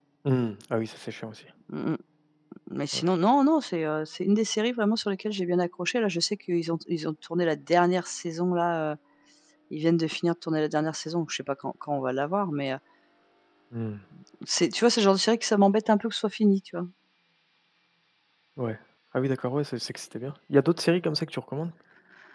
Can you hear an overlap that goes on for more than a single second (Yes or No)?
No